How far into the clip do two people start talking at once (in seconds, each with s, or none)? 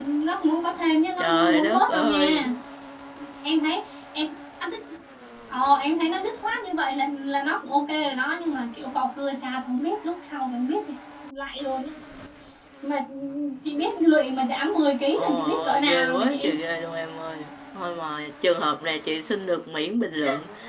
1.2 s